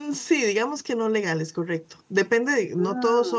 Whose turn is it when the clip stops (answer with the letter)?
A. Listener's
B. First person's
B